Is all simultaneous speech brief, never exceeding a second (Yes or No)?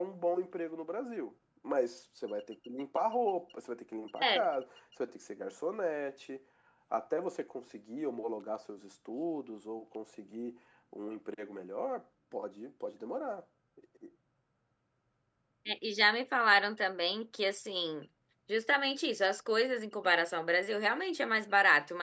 Yes